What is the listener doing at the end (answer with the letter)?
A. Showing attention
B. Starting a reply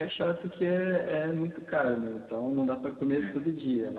A